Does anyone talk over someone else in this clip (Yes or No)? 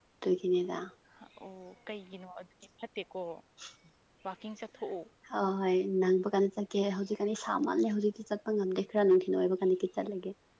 No